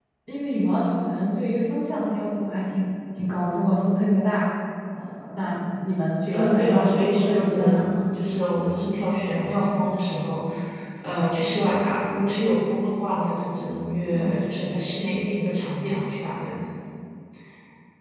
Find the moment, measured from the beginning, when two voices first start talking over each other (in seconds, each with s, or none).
6.3 s